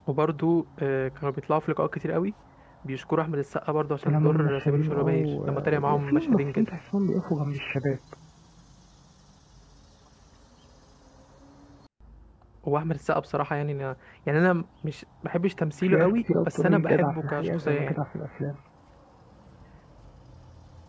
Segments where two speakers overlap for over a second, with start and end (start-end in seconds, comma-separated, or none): 4.0-6.7, 15.8-18.0